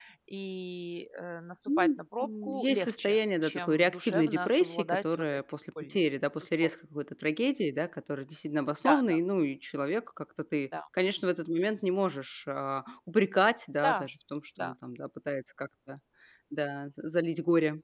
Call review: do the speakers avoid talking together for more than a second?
No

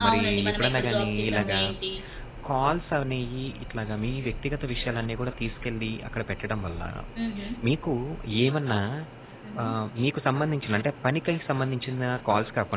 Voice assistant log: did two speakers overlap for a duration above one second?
Yes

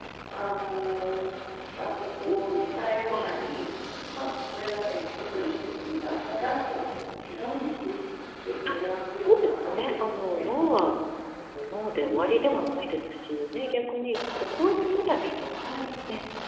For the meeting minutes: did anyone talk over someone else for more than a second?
Yes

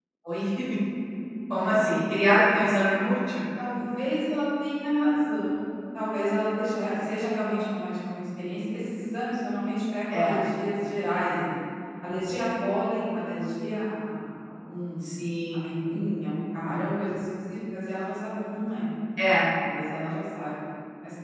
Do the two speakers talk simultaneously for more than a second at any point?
No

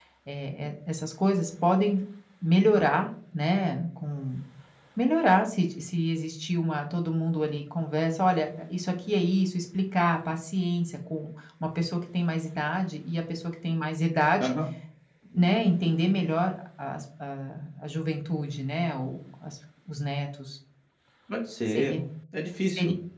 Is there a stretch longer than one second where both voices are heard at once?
No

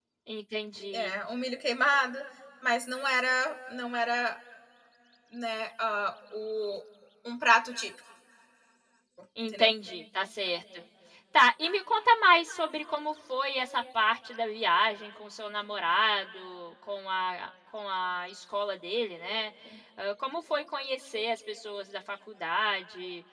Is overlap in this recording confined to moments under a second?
Yes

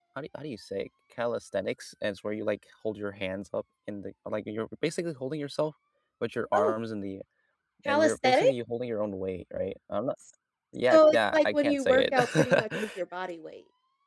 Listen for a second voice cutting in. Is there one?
Yes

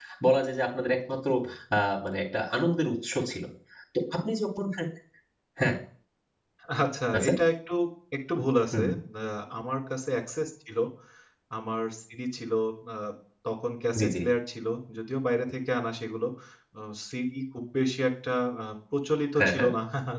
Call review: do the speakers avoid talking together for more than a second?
Yes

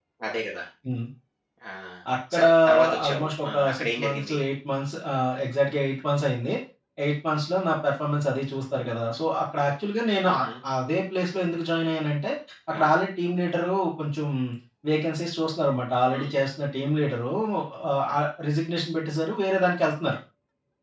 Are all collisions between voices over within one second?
No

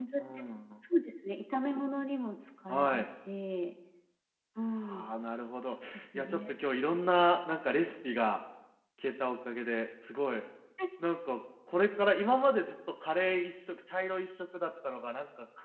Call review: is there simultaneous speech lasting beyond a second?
No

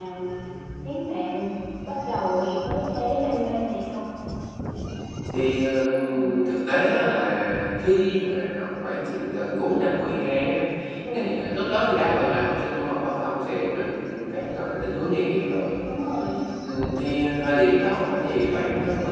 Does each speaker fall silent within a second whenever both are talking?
Yes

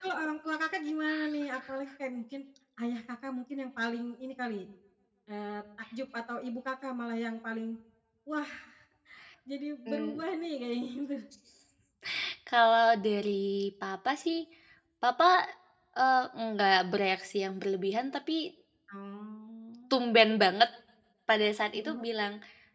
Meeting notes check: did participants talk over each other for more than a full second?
No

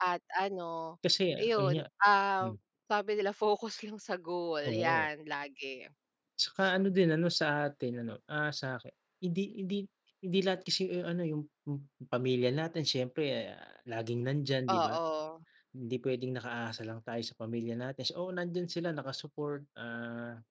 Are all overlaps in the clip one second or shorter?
Yes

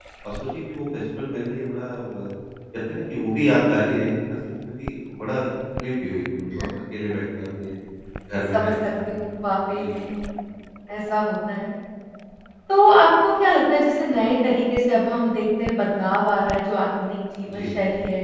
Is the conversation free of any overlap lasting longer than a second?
Yes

